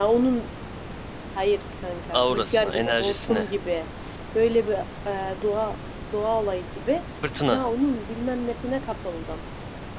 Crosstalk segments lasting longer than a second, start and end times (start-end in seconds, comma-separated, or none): 2.1-3.5